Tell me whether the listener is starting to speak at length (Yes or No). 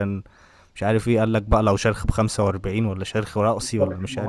Yes